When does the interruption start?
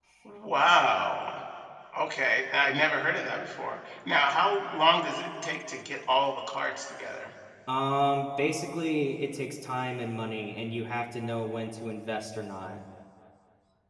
none

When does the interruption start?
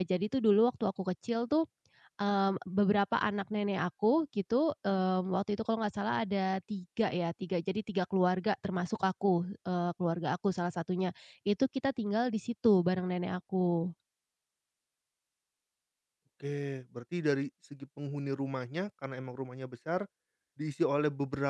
none

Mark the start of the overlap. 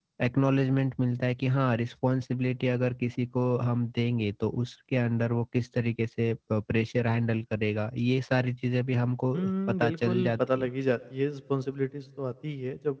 9.3 s

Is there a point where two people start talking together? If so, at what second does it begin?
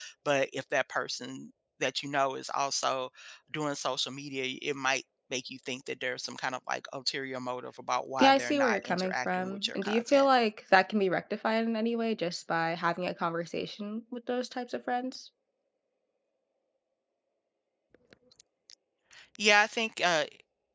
8.2 s

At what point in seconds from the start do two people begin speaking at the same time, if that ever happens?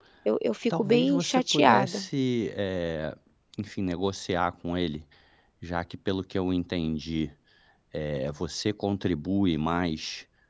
0.8 s

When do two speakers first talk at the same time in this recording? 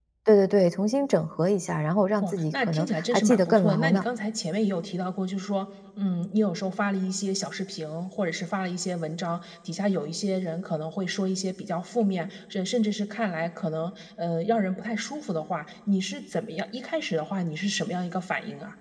2.2 s

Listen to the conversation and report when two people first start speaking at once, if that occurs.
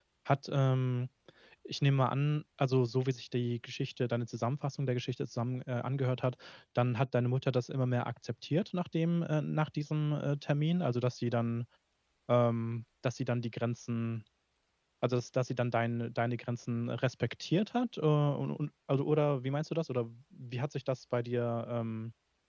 none

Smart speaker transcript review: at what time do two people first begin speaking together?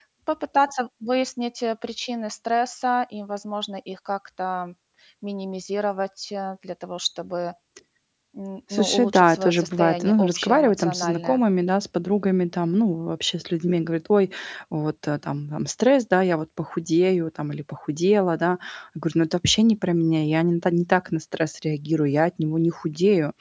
8.7 s

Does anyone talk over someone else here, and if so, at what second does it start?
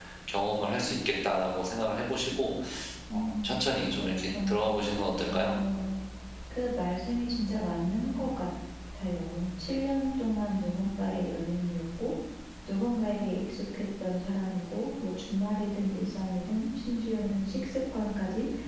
3.1 s

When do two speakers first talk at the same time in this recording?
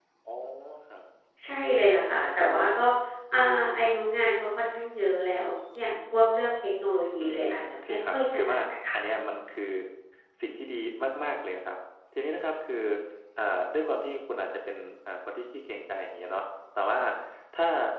7.2 s

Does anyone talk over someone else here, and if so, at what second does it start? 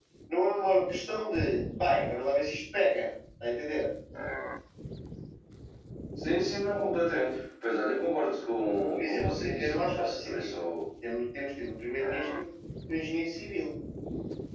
9.0 s

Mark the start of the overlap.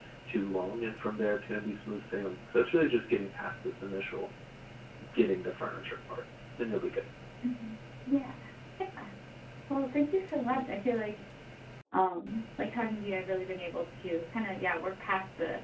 none

